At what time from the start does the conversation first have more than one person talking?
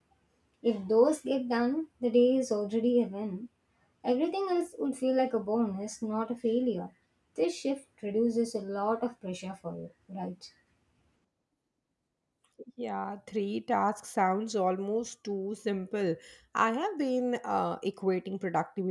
none

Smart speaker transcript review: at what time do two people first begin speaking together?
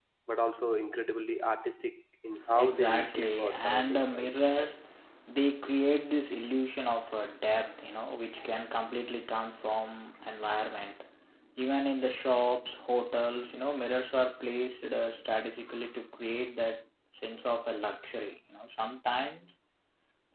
2.3 s

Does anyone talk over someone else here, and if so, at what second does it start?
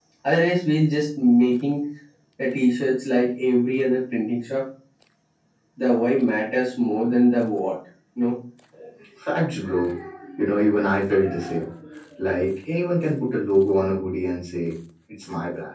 none

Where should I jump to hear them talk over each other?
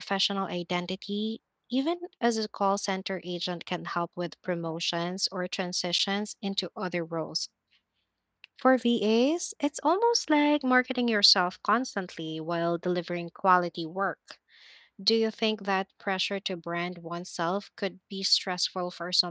none

